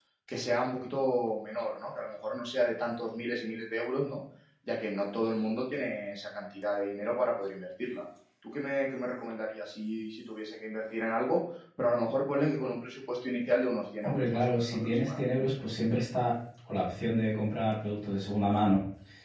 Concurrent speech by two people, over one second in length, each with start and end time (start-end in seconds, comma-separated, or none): 14.0-15.3